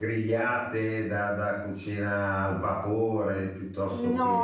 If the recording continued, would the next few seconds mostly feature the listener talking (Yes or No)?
Yes